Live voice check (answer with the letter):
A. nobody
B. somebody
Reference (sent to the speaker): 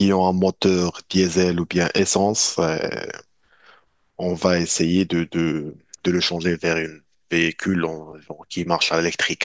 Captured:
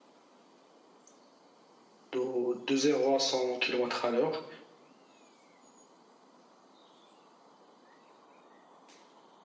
B